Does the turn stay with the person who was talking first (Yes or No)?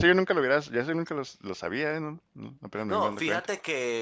No